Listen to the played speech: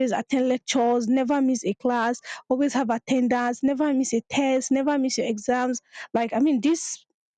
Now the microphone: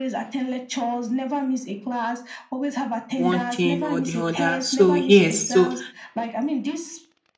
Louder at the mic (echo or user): user